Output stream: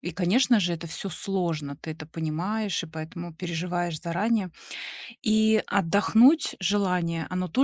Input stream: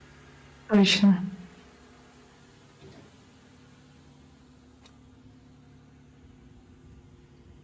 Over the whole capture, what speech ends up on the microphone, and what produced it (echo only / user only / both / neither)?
user only